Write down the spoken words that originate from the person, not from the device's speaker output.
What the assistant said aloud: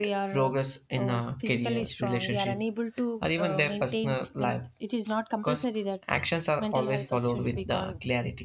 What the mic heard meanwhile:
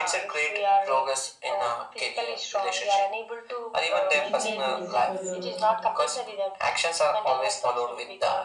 exercises for the

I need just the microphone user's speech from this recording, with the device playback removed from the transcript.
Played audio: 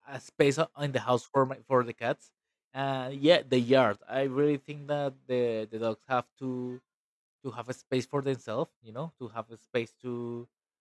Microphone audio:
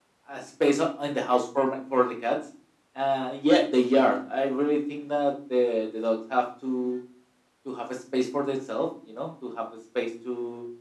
none

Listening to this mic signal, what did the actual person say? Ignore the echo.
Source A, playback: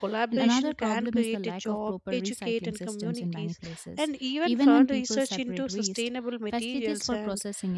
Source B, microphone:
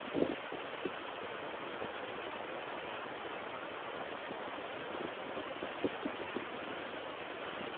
none

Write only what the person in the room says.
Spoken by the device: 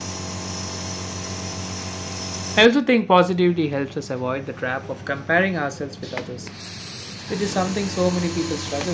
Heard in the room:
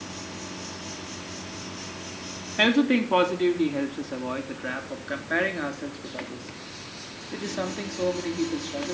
none

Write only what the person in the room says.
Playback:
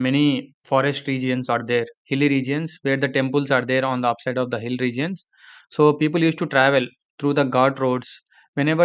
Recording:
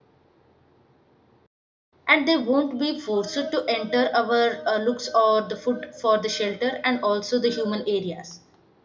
And they won't be forced to enter our uh, looks or the food for the shelter and also the human areas.

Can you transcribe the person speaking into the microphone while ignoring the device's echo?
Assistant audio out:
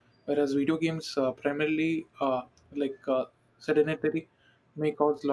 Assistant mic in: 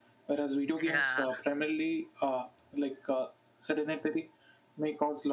Yeah.

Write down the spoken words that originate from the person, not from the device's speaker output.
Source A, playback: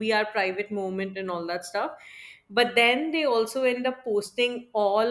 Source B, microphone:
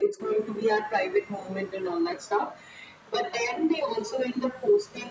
none

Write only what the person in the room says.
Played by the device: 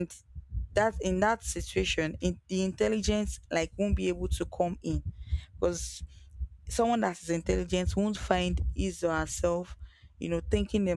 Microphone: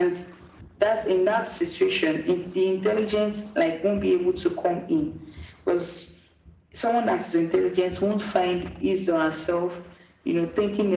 none

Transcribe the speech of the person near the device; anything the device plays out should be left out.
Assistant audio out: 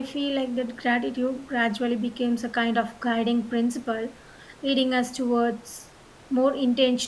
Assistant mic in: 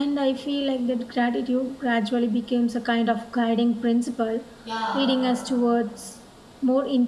Yeah,

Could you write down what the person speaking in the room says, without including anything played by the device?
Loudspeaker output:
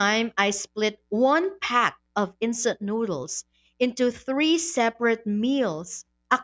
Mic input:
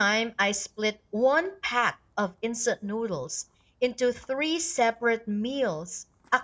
none

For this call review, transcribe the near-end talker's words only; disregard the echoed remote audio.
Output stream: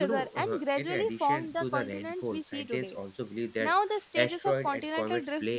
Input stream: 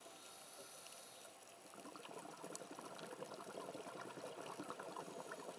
none

